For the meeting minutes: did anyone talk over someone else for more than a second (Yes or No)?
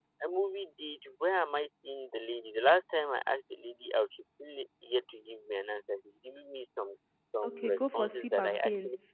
Yes